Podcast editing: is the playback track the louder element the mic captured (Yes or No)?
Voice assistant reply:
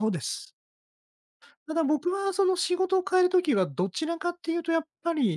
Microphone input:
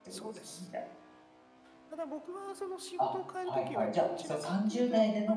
No